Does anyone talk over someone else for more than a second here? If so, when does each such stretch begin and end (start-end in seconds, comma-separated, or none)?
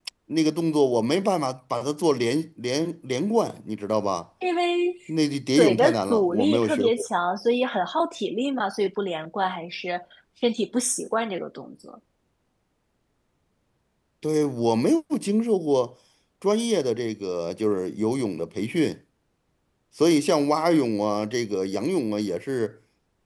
5.6-7.0